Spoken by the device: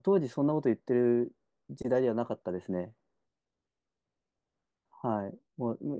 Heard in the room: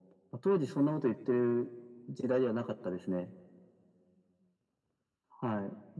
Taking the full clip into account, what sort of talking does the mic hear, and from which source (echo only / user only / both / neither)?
echo only